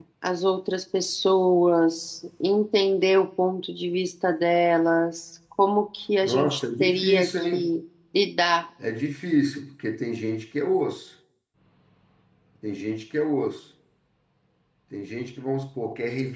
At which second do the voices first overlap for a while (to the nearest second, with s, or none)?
6 s